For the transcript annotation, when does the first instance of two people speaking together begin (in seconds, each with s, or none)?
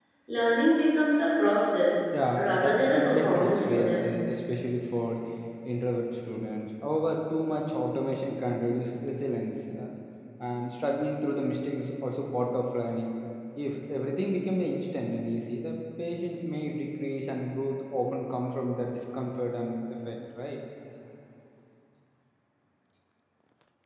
2.4 s